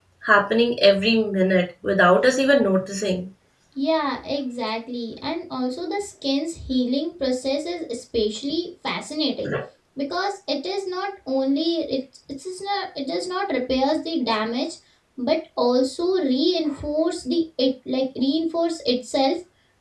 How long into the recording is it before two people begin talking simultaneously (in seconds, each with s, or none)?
none